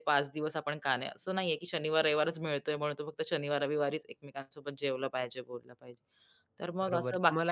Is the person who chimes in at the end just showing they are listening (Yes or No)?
No